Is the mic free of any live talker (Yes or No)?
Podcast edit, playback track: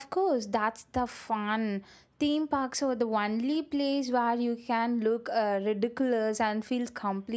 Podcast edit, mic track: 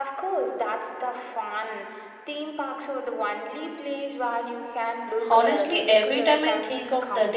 No